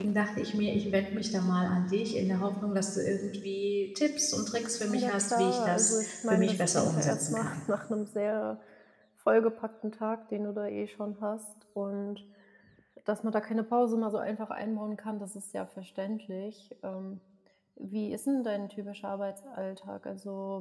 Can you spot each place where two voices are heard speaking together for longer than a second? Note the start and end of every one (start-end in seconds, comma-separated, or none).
5.0-7.6